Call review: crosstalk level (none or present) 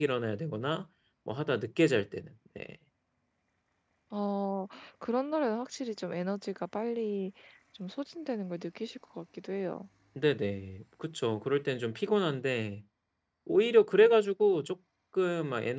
none